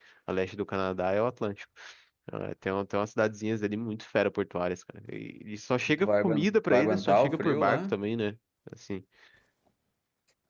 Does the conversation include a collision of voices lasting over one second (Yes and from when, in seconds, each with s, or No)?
Yes, from 6.0 s